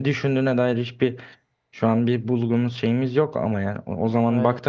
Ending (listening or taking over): listening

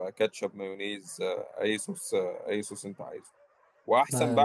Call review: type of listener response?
listening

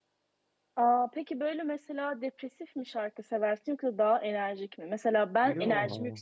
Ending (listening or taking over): listening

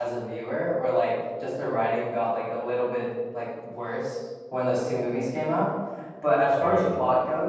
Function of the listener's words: listening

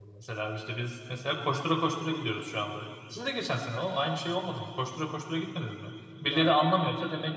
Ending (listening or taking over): listening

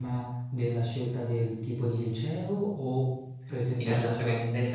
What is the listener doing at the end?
taking over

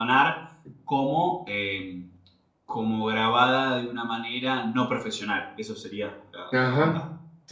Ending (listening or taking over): taking over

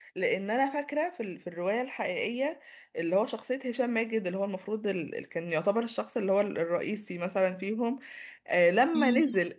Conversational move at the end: listening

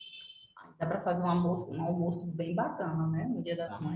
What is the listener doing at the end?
taking over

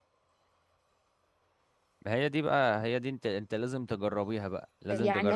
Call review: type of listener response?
taking over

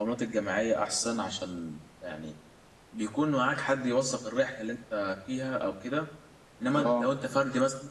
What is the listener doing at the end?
listening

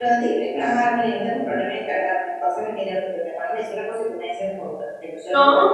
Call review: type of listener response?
listening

